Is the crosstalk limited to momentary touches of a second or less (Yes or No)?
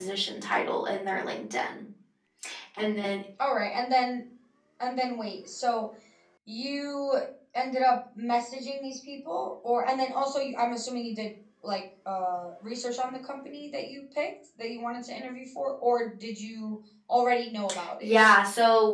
Yes